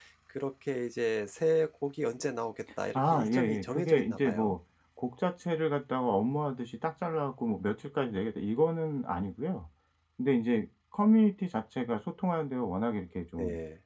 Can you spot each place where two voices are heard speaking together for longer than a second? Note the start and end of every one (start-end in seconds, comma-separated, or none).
3.0-4.6